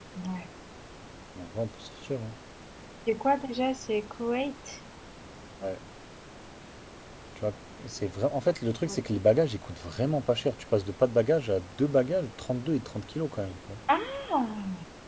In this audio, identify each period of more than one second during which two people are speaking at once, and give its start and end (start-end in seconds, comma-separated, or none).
none